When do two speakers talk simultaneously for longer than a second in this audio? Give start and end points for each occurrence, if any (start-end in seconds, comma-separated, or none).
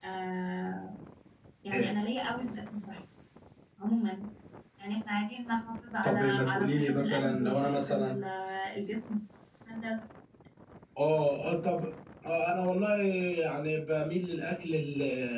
6.0-8.2